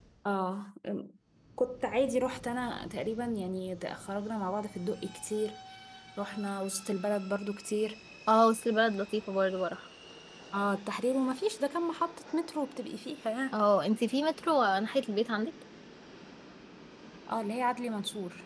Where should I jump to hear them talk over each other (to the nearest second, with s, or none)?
none